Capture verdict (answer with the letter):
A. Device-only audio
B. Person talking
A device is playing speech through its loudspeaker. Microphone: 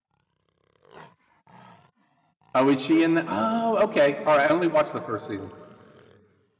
B